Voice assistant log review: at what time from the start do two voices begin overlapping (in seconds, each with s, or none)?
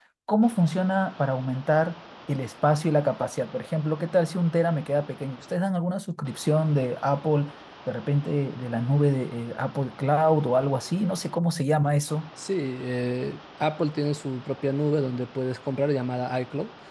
none